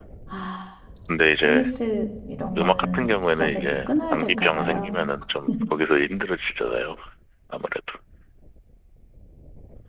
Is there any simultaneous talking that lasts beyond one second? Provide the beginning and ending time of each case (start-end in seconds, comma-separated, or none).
2.6-5.0